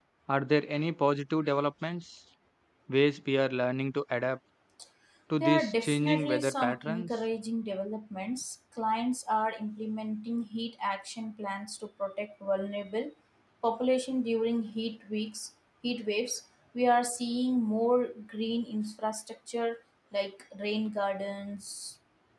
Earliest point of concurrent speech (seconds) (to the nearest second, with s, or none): 5 s